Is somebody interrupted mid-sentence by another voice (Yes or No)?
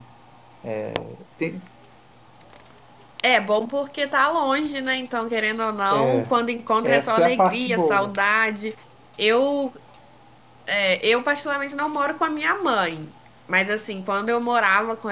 Yes